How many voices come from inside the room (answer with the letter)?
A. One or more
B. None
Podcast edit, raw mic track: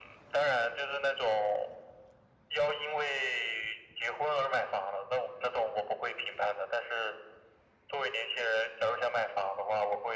B